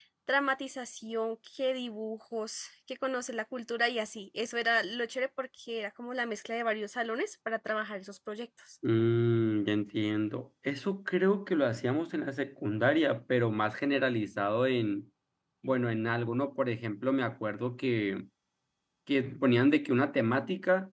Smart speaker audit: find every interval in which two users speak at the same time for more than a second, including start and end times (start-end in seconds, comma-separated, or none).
none